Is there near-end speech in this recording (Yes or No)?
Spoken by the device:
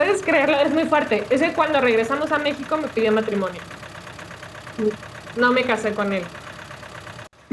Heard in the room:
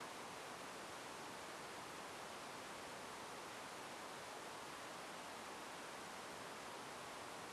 No